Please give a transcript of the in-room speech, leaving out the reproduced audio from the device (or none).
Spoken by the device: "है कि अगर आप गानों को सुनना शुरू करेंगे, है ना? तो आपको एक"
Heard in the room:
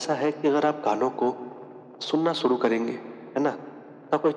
none